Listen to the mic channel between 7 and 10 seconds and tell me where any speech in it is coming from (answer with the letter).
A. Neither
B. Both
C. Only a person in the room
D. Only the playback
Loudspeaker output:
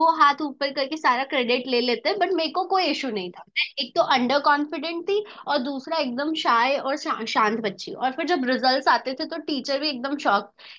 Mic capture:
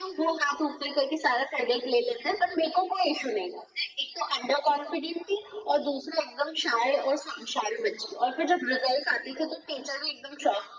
D